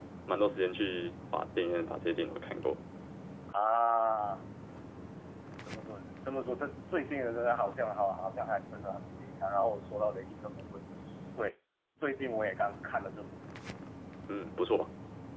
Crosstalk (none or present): none